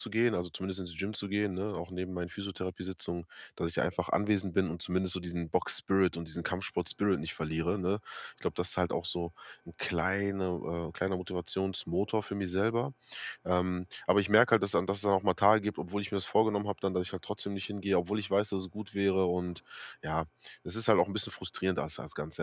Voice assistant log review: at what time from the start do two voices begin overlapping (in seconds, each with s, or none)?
none